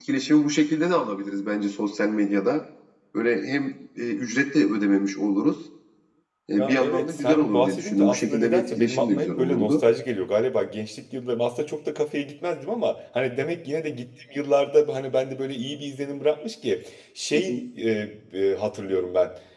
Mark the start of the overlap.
6.6 s

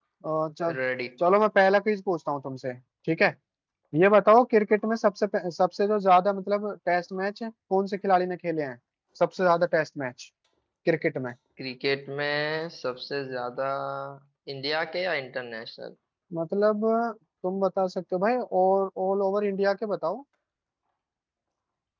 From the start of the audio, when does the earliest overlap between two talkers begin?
none

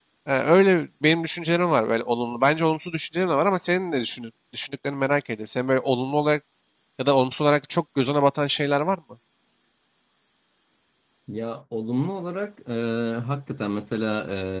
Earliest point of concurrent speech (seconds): none

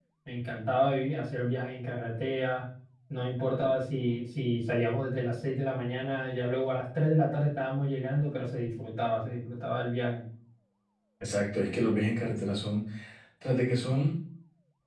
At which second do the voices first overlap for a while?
none

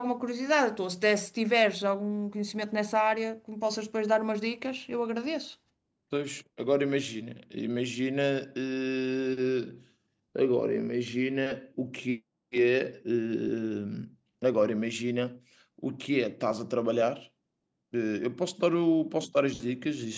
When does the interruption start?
none

